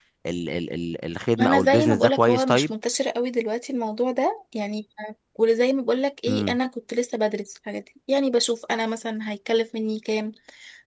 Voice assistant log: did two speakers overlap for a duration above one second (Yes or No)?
Yes